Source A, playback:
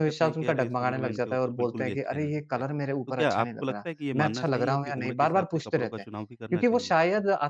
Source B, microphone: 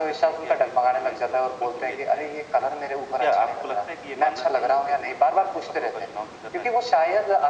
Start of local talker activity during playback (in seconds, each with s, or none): none